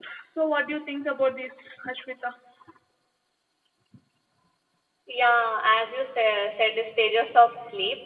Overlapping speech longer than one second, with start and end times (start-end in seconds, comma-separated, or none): none